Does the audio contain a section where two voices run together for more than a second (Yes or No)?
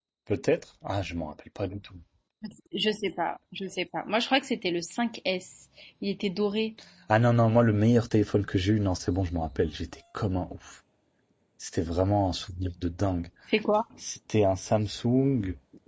No